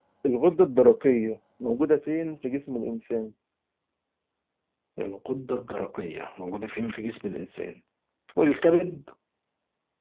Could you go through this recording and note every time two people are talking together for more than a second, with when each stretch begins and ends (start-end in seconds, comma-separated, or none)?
none